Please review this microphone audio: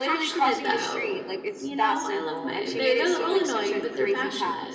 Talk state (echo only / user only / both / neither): both